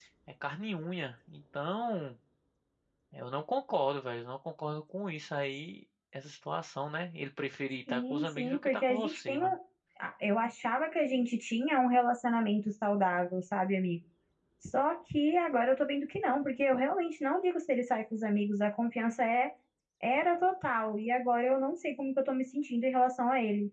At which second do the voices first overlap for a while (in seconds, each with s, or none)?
7.9 s